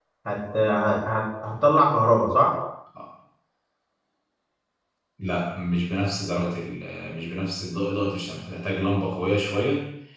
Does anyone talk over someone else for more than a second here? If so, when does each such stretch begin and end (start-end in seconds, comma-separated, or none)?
none